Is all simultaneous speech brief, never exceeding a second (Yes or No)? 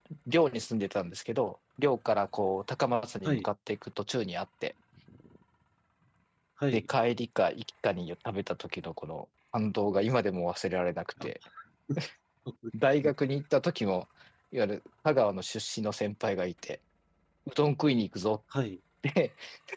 Yes